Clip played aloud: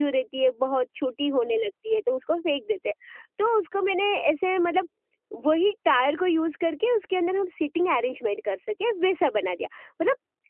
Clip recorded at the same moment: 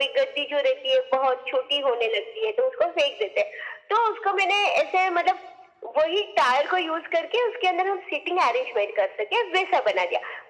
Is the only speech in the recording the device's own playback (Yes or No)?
Yes